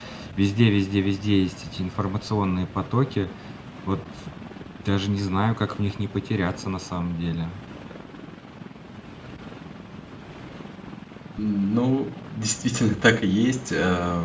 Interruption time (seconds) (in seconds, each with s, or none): none